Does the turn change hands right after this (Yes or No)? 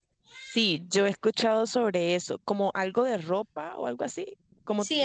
Yes